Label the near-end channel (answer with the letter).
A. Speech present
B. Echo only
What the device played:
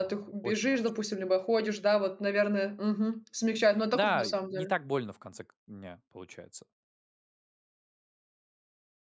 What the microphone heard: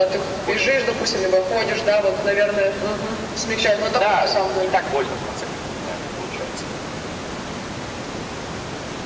B